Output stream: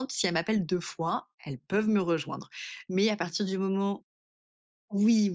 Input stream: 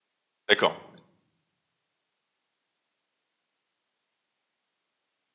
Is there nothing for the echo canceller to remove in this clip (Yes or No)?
Yes